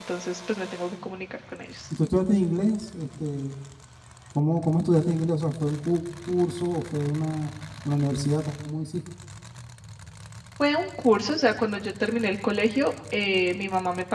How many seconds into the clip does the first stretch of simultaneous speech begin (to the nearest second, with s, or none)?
none